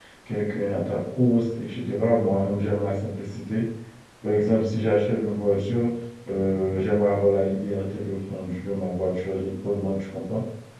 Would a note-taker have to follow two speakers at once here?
No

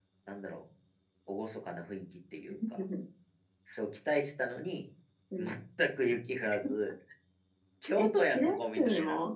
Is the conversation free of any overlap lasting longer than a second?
No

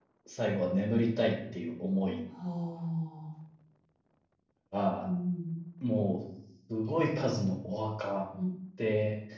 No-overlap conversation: Yes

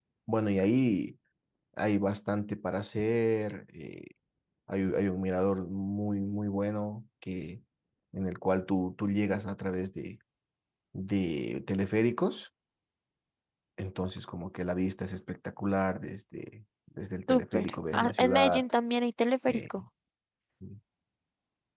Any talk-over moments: Yes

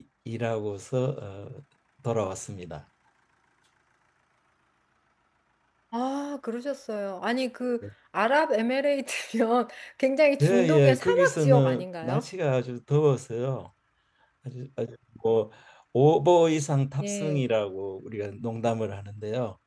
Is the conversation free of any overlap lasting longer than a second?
No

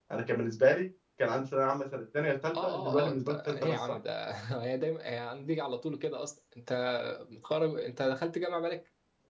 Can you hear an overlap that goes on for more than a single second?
Yes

